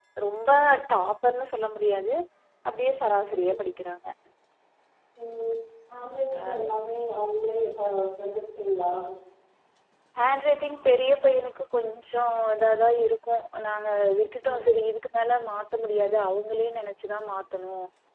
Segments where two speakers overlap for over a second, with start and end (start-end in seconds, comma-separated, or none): none